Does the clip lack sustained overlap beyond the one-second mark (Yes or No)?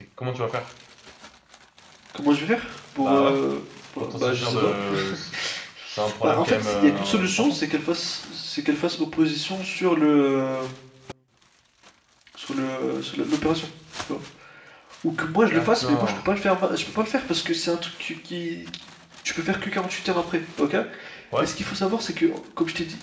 No